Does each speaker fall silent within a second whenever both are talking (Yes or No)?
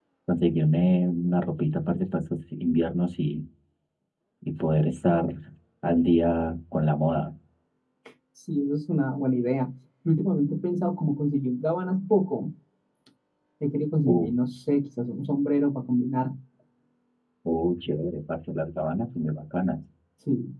Yes